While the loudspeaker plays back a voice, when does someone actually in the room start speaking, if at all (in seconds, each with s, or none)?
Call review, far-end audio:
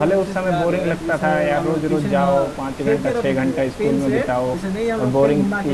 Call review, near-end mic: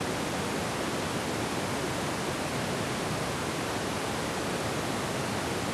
none